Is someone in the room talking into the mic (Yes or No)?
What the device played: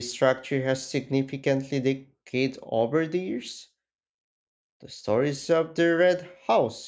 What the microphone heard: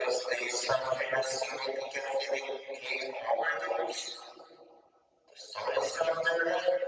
No